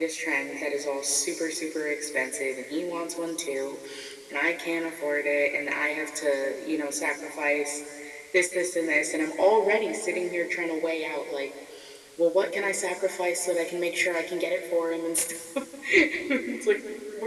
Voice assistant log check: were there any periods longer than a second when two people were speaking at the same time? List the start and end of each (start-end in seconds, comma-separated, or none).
none